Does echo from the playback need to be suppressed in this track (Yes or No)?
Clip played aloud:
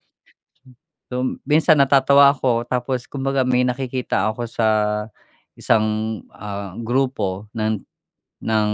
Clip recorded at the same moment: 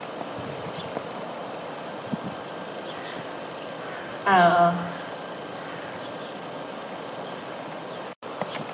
No